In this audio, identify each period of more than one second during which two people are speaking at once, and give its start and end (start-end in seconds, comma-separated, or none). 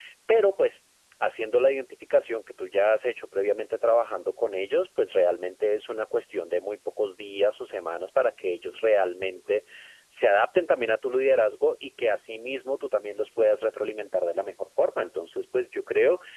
none